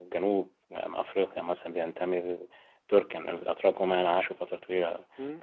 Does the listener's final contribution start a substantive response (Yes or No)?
No